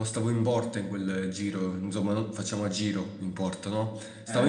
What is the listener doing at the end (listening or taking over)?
listening